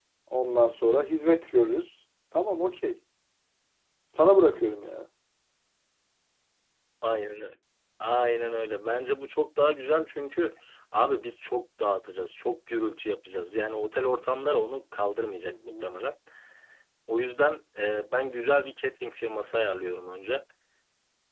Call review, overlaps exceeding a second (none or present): none